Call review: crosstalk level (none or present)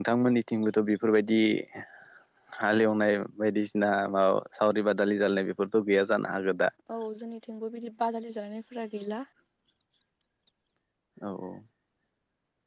none